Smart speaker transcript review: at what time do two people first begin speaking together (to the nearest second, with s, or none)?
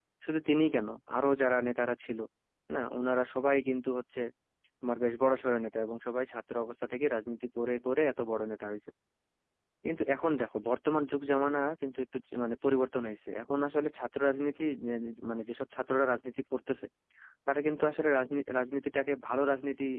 none